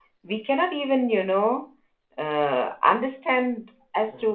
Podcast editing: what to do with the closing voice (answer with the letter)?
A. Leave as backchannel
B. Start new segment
A